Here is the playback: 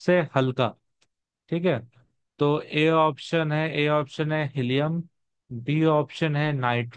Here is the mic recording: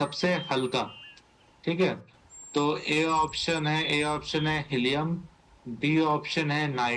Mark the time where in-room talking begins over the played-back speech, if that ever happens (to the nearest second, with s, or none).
none